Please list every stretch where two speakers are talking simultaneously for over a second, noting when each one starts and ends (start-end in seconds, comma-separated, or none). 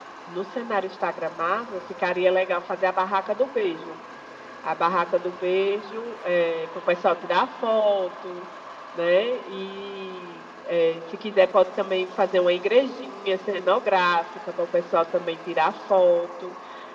none